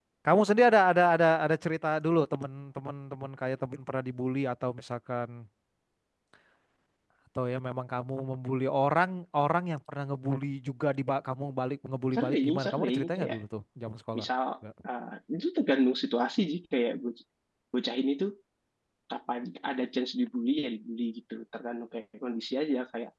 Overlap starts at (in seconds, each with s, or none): 12.1 s